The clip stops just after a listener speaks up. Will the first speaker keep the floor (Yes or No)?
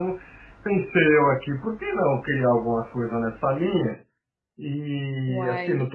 Yes